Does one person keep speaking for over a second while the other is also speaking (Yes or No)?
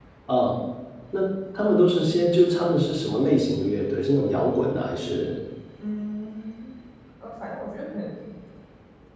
No